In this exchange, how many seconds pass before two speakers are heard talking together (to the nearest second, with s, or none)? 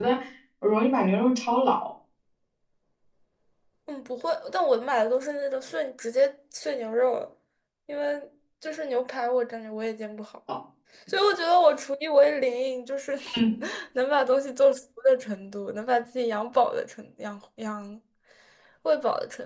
none